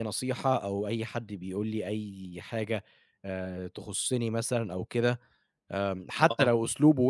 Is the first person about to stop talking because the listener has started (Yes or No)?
No